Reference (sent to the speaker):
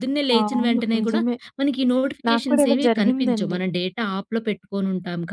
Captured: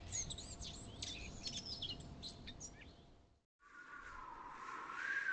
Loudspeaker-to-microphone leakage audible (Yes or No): No